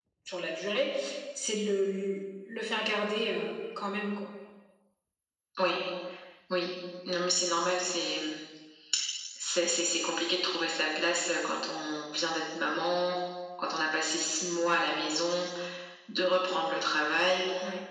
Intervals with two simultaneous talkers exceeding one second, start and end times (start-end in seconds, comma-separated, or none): none